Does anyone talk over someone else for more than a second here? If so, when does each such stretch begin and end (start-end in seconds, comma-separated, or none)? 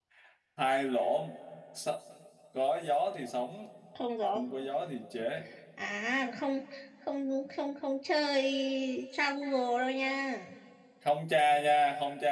none